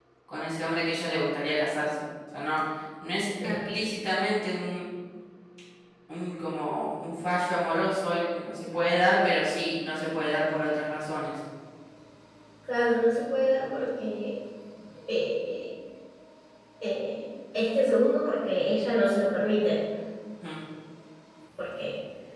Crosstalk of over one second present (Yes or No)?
No